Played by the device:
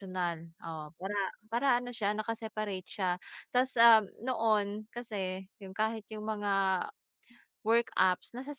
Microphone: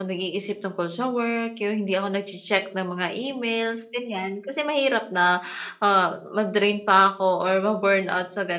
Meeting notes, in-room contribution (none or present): present